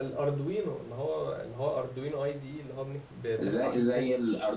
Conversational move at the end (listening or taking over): taking over